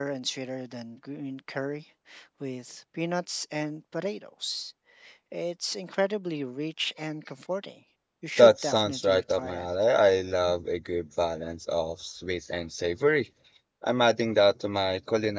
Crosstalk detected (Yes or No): Yes